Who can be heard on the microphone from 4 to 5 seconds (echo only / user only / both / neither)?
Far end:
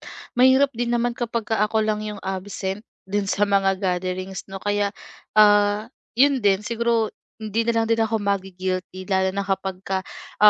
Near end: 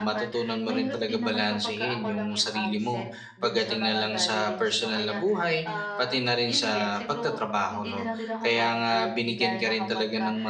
both